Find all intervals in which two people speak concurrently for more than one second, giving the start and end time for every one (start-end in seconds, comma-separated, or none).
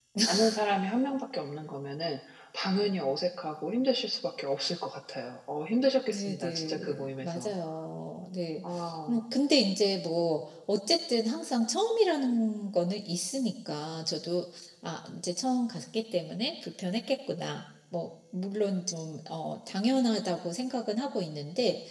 6.1-7.5